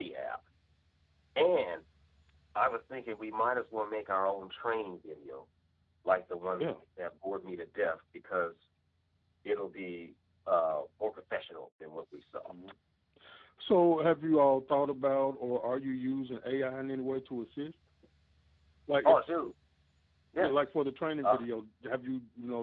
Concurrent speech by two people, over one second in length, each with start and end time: none

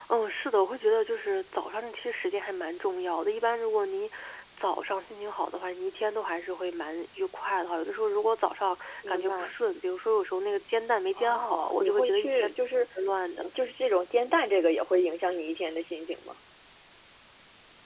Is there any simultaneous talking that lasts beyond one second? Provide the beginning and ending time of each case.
11.2-12.5

